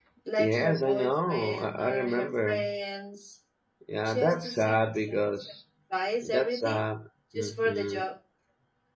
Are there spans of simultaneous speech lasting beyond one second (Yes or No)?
Yes